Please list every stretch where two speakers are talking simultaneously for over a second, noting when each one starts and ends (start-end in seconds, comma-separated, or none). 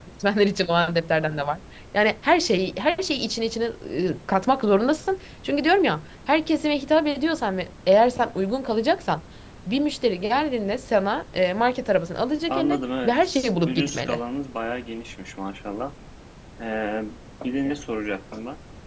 12.5-14.2